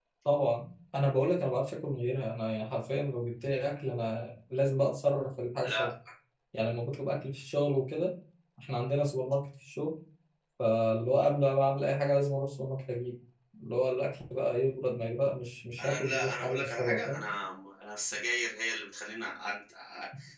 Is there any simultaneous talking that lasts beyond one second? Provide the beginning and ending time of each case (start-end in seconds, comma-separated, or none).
15.8-17.2